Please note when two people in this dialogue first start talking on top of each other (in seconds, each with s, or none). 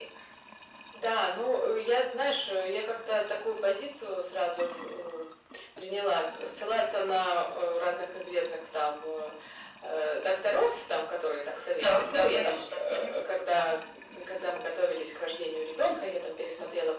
11.8 s